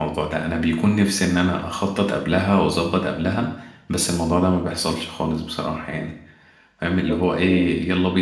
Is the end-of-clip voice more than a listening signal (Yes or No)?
No